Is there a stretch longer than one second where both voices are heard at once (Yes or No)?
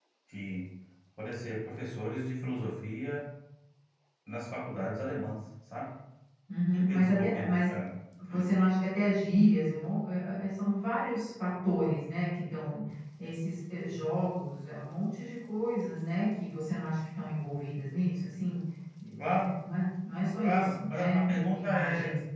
Yes